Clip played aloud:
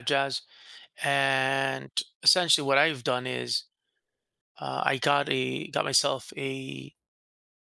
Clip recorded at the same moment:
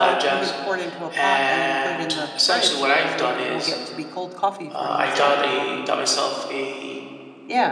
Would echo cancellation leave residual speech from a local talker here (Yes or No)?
Yes